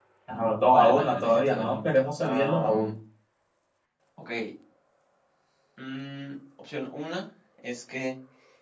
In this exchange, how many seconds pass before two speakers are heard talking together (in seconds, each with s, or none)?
0.7 s